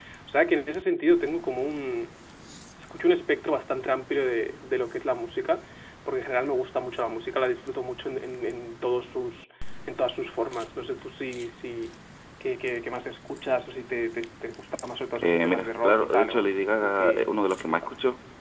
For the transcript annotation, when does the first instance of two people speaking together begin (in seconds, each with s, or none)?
15.2 s